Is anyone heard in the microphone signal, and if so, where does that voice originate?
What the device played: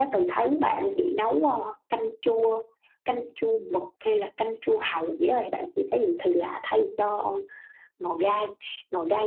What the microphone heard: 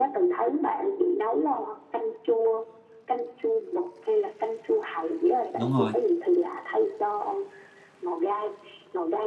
both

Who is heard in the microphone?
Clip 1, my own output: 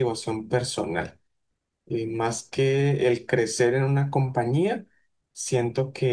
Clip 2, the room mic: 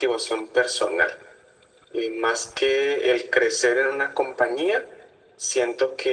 echo only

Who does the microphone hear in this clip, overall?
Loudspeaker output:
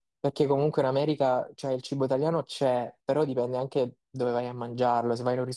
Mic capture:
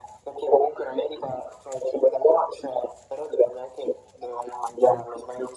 echo only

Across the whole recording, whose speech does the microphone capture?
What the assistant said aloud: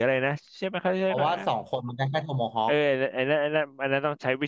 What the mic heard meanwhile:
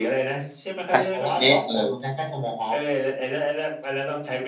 both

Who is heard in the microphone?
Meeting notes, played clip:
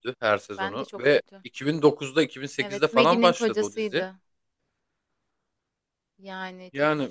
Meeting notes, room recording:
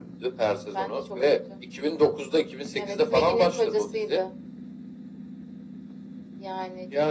echo only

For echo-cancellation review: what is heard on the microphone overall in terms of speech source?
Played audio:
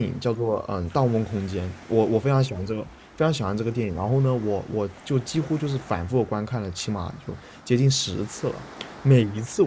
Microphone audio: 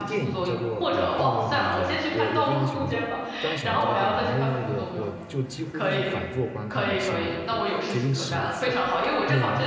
both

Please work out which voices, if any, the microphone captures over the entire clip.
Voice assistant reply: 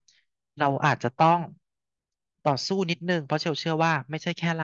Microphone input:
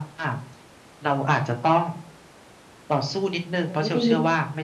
both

